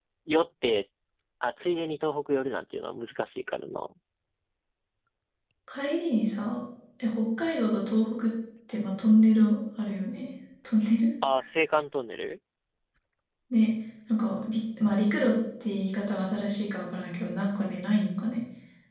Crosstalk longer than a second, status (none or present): none